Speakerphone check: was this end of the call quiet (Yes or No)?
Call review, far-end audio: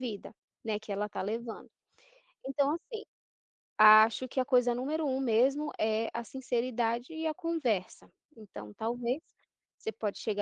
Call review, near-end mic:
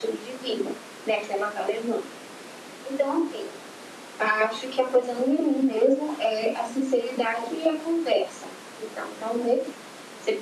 Yes